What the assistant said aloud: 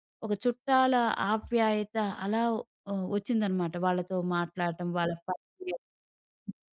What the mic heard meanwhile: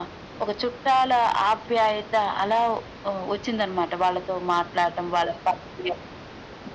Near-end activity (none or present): none